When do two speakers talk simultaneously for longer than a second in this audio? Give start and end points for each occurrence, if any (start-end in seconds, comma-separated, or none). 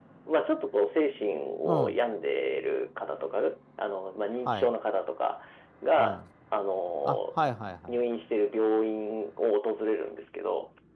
none